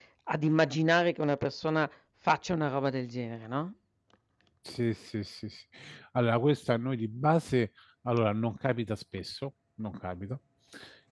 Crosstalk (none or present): none